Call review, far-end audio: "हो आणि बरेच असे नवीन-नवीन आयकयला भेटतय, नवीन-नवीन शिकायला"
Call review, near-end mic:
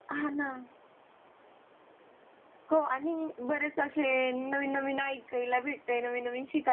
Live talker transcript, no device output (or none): none